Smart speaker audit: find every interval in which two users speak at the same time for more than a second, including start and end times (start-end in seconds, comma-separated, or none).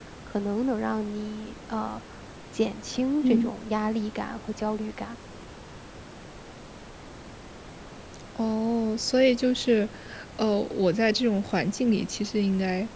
none